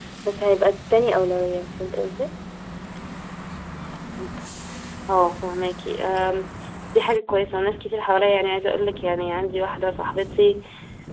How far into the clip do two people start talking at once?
none

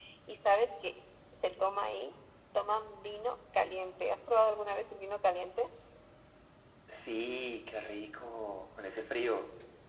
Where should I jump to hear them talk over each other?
none

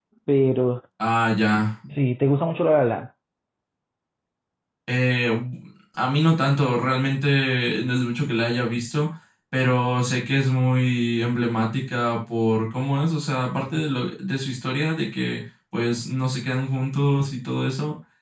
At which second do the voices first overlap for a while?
none

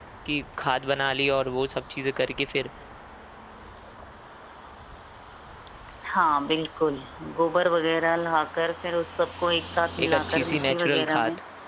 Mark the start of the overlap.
10 s

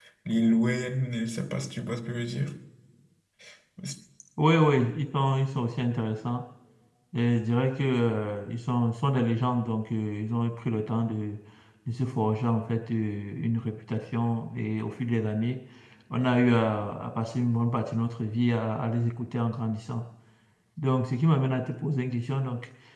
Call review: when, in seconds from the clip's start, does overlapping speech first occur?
none

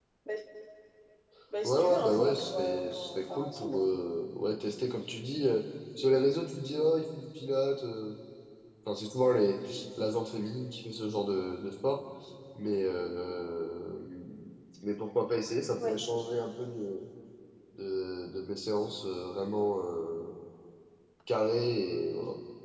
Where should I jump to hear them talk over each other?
2 s

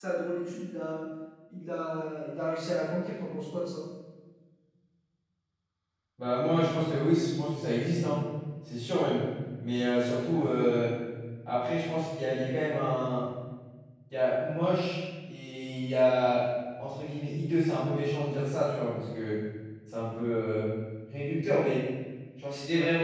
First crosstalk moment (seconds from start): none

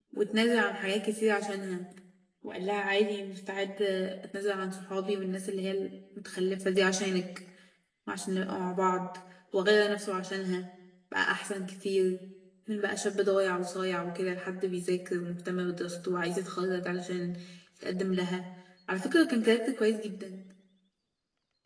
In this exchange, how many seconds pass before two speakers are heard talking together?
none

